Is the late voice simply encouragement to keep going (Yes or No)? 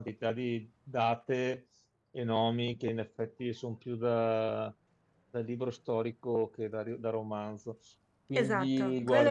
No